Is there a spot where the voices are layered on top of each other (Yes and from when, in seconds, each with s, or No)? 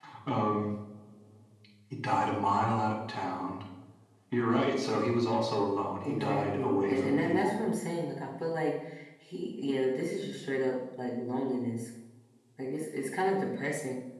Yes, from 6.0 s